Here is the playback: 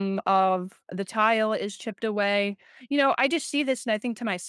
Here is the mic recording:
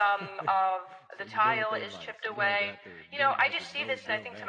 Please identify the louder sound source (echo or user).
echo